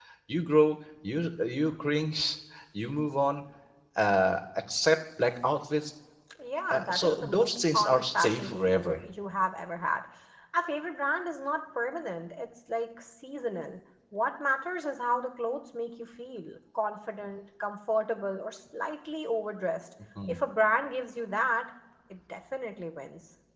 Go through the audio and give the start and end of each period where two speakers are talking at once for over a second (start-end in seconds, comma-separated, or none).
6.7-9.0